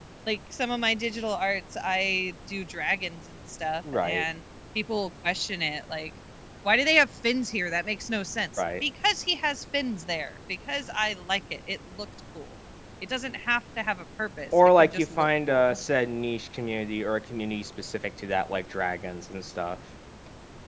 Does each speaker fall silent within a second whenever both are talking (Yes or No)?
No